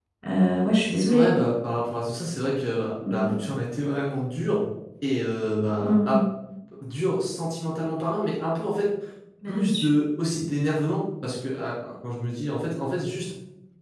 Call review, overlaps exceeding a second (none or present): none